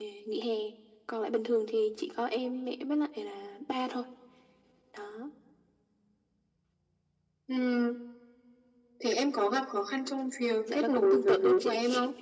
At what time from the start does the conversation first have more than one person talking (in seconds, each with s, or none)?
10.4 s